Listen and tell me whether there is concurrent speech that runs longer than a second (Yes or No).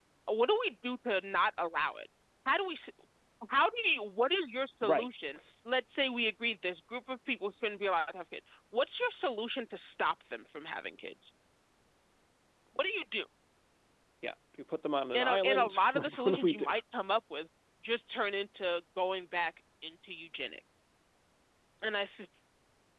Yes